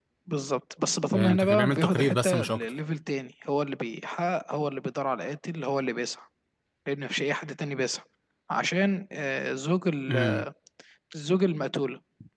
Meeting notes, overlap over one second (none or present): present